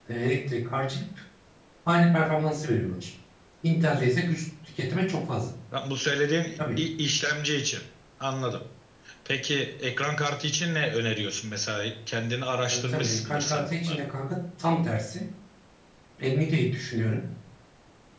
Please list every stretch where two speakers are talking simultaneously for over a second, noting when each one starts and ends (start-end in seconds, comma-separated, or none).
12.7-14.0